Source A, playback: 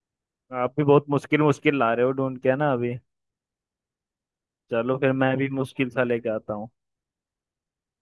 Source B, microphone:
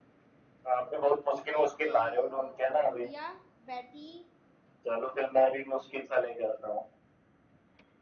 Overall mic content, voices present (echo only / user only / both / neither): both